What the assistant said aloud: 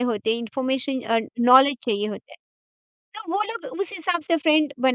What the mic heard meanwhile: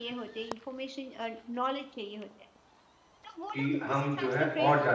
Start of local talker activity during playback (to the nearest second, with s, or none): 4 s